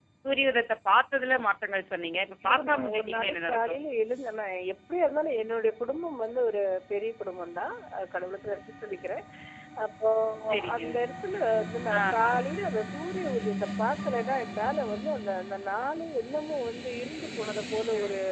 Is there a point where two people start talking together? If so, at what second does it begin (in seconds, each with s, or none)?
2.4 s